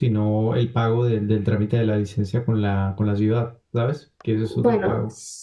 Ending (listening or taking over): taking over